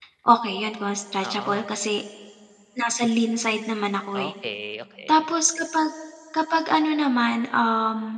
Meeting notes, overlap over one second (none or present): none